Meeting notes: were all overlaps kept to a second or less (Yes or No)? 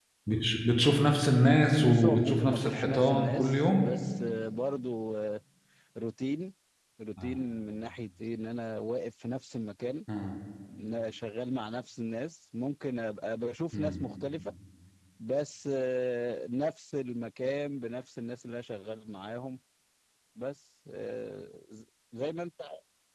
No